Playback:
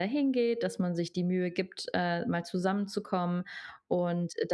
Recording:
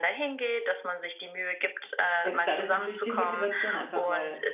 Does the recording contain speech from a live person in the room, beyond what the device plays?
Yes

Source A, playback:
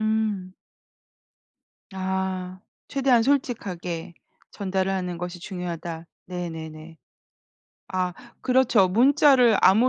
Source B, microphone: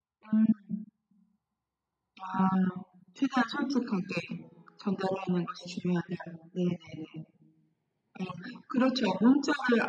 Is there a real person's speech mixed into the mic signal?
No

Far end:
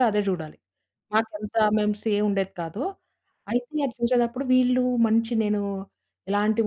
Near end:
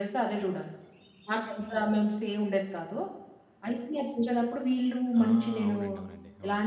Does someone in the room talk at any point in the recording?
Yes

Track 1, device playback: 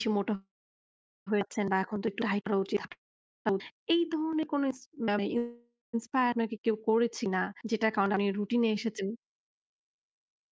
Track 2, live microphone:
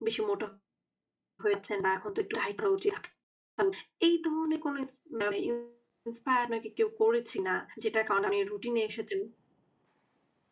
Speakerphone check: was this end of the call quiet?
Yes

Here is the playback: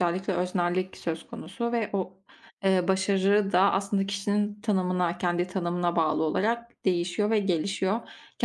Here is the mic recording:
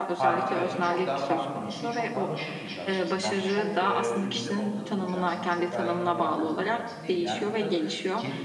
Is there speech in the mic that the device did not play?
Yes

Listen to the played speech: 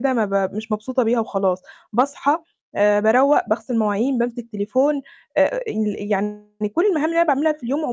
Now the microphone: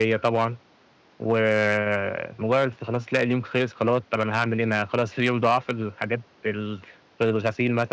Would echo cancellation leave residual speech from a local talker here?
Yes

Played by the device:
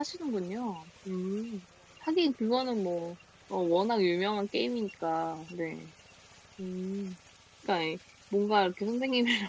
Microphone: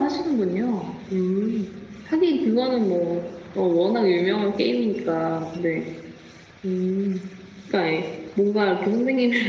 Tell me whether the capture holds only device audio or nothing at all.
Yes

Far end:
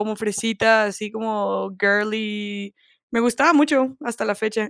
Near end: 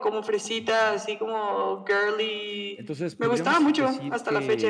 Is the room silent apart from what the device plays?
No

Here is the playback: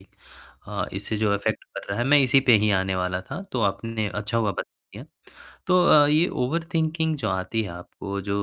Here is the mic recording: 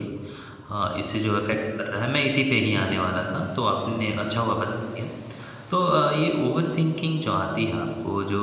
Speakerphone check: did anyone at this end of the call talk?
No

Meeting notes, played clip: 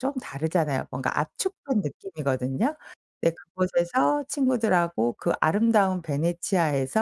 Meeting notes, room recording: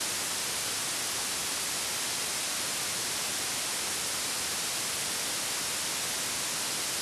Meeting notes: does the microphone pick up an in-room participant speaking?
No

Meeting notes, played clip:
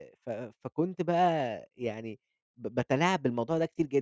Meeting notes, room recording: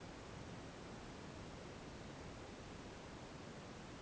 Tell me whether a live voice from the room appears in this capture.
No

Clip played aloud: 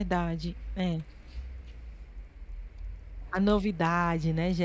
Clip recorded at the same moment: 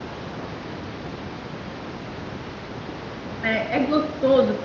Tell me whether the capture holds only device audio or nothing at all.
No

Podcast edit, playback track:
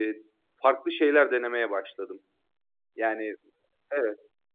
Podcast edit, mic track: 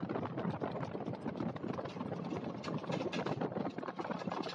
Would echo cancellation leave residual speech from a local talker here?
No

